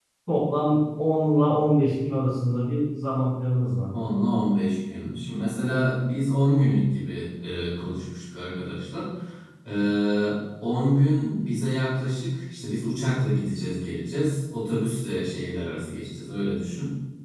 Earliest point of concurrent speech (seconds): none

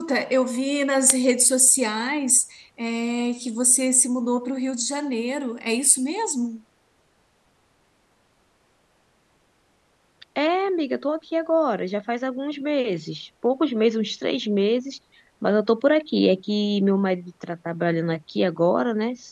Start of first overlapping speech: none

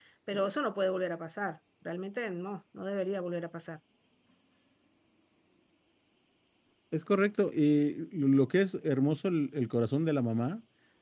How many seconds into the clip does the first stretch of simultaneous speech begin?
none

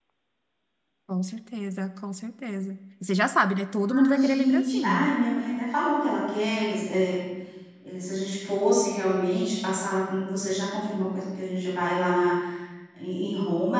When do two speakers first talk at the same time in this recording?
3.9 s

